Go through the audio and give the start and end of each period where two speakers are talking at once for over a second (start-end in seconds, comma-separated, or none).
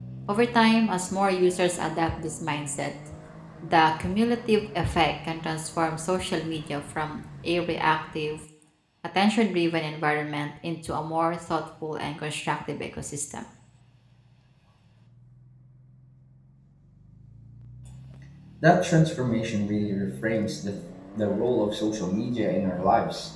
none